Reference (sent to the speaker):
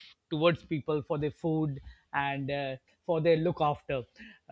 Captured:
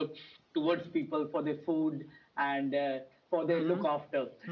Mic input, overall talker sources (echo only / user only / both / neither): both